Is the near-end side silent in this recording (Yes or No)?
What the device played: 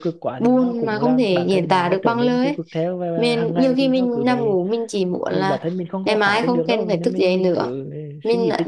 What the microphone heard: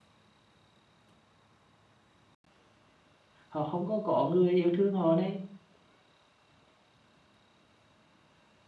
No